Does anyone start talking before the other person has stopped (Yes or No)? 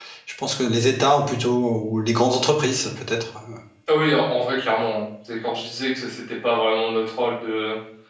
No